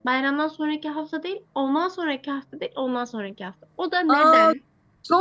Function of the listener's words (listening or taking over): taking over